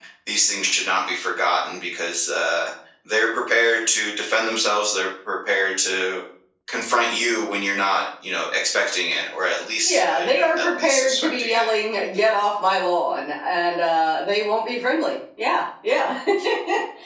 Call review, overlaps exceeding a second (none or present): present